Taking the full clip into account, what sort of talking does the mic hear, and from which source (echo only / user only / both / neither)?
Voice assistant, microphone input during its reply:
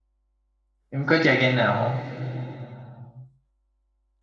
user only